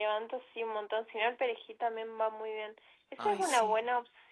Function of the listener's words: listening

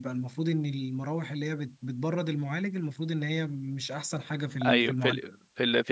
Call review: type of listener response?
taking over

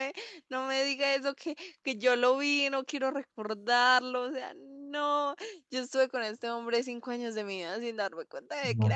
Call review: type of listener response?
taking over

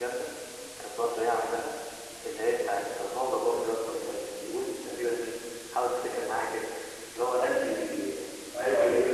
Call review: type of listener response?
taking over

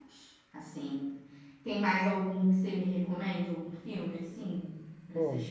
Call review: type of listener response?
taking over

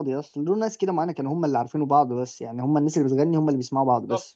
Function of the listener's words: taking over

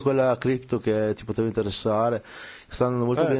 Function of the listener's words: listening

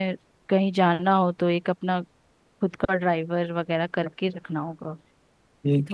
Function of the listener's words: taking over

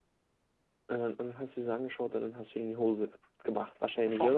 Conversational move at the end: taking over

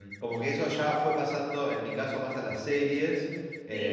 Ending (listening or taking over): listening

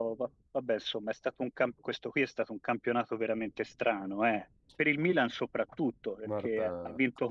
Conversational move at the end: listening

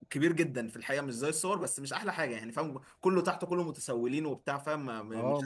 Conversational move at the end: taking over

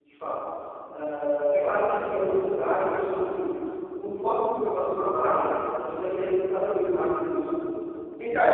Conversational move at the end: taking over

